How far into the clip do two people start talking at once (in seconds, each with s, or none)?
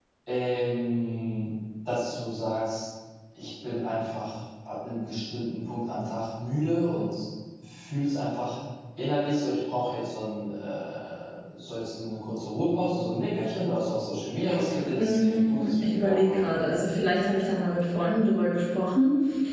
15.0 s